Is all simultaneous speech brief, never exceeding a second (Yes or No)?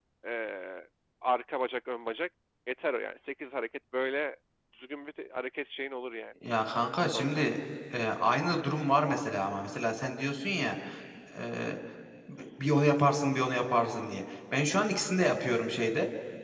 Yes